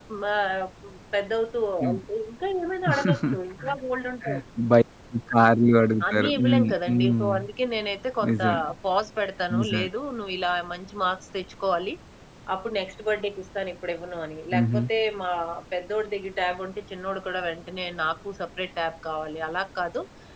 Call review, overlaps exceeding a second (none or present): present